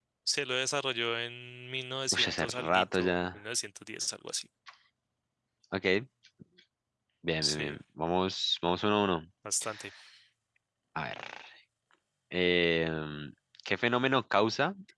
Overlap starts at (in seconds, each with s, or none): 2.1 s